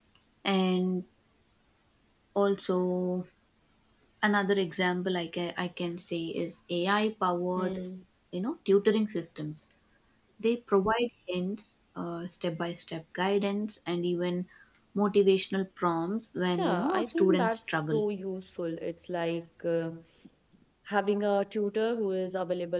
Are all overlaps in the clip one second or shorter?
No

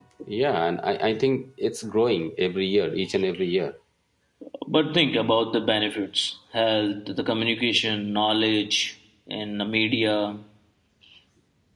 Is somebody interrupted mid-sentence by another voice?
No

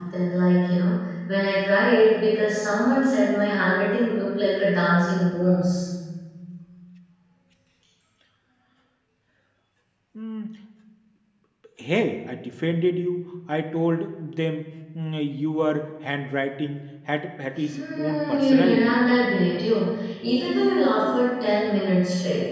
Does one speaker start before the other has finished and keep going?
Yes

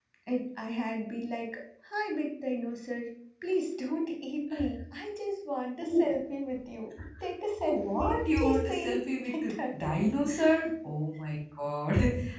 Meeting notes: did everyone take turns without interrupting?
No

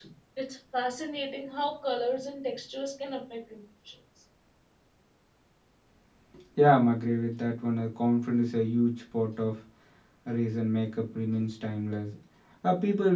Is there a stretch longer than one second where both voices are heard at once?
No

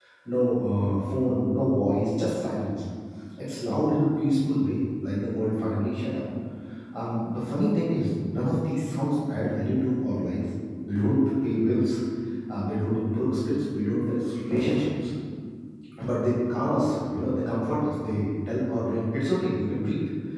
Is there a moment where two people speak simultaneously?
No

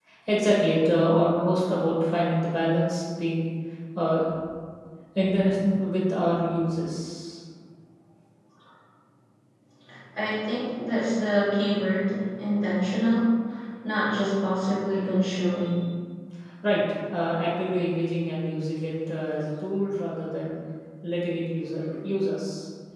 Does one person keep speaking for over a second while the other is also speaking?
No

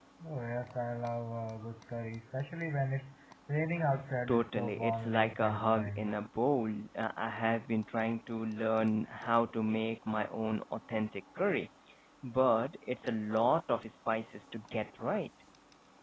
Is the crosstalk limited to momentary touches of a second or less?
No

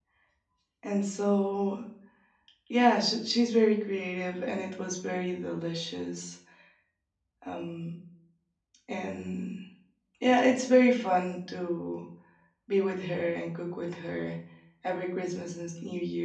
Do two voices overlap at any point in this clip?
No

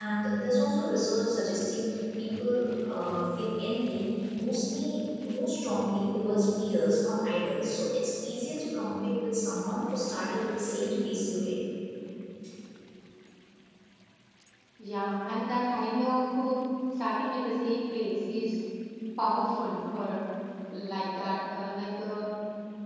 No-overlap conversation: Yes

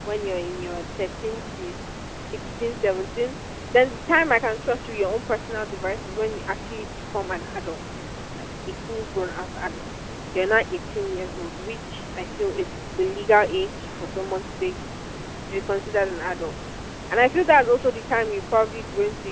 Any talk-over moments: No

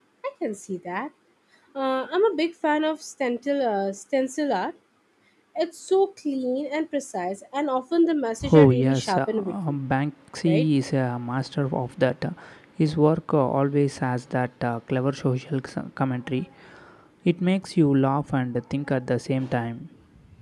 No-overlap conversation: No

